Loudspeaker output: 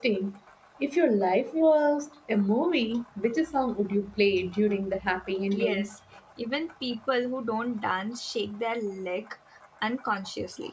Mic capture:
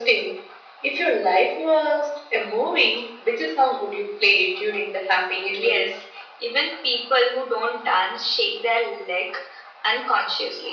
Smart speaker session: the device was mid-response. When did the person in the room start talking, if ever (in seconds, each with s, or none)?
none